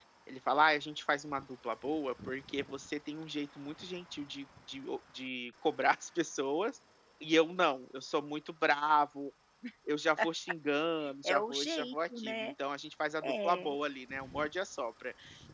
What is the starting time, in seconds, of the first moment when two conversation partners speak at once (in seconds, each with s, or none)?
11.2 s